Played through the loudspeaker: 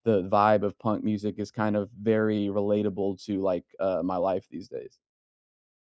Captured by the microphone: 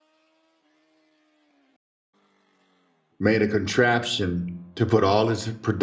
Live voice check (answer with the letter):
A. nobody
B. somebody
B